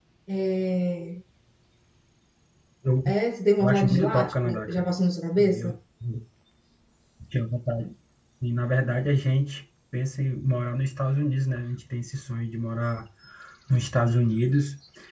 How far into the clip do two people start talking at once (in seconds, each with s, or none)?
3.6 s